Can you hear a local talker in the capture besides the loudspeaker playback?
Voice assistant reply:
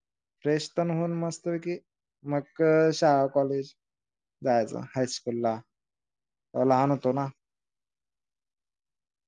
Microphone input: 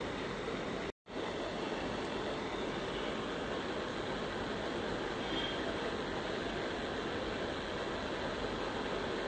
No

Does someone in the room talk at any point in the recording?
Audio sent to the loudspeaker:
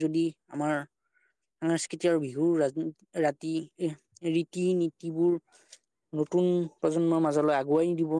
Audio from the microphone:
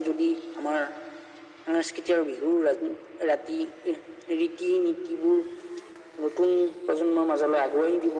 No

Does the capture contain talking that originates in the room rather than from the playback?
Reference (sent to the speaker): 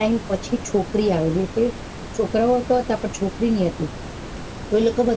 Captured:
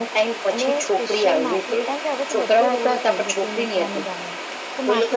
Yes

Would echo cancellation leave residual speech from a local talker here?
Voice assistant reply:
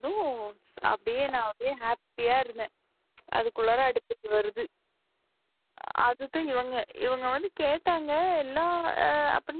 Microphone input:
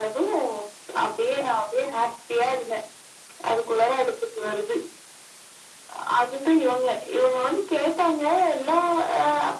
No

